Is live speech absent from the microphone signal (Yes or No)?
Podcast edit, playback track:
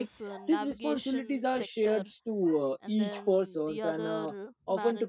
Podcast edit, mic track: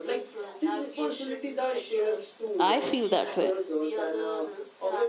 No